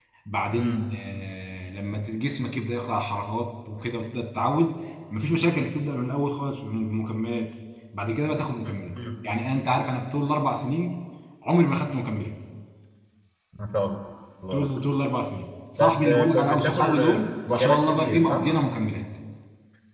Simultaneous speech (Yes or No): Yes